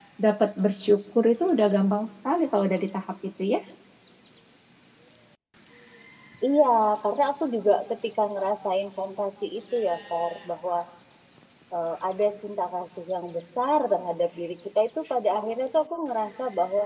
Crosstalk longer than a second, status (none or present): none